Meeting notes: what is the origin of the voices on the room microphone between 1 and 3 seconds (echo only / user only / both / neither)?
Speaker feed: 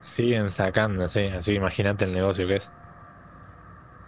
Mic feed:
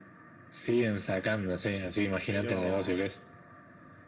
both